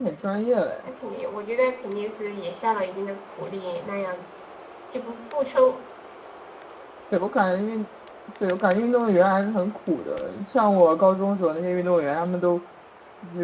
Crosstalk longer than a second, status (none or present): none